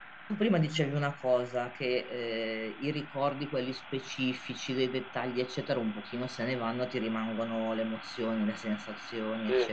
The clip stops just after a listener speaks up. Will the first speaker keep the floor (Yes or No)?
Yes